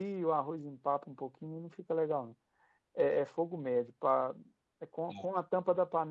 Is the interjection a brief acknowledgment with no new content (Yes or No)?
Yes